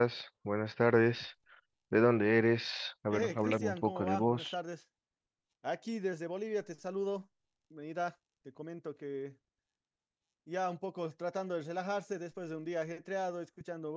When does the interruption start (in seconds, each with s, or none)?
3.1 s